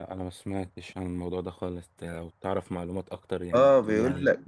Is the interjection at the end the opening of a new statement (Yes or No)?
Yes